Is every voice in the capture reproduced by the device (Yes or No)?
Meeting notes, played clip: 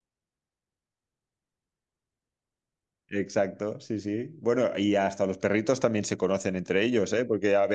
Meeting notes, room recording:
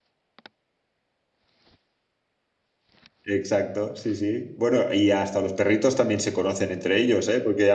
Yes